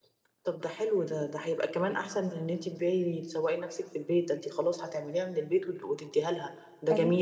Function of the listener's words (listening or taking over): listening